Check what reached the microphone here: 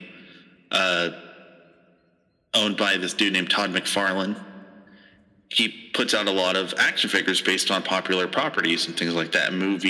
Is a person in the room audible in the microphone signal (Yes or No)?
No